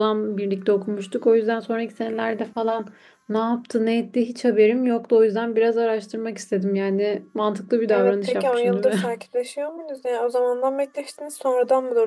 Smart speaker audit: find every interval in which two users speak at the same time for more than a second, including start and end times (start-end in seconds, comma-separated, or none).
7.9-9.2